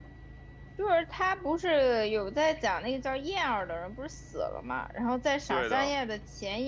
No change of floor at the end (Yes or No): Yes